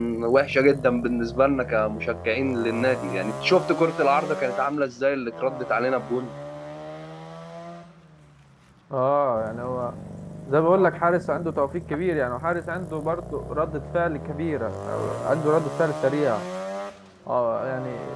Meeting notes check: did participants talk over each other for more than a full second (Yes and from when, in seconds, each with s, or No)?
No